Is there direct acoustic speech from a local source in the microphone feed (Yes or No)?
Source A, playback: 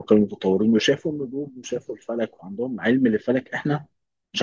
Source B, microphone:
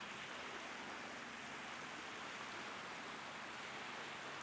No